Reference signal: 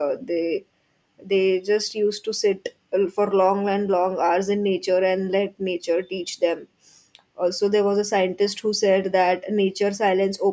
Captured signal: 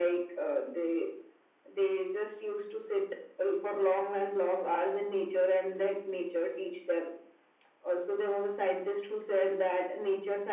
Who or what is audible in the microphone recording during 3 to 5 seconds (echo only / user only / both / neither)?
echo only